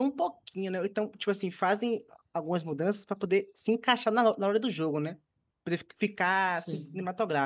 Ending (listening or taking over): listening